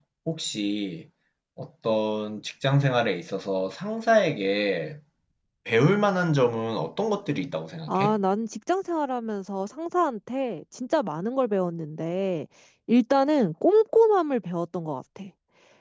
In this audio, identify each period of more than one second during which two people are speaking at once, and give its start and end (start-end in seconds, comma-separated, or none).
none